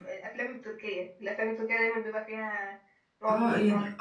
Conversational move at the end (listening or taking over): taking over